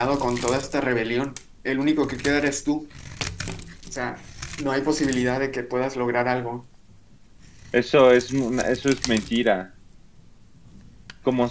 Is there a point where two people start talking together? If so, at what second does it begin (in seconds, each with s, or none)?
none